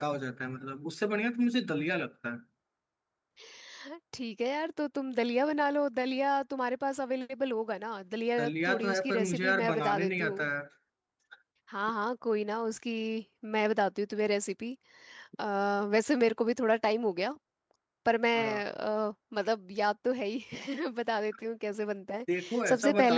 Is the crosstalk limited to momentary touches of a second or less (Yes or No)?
No